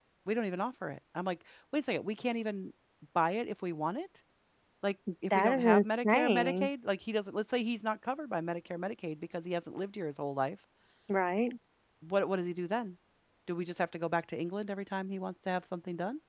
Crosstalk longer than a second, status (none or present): present